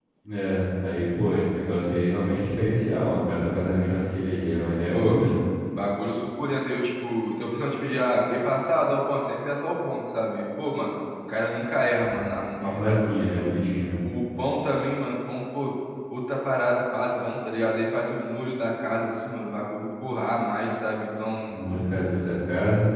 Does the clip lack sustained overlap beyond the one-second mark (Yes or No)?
Yes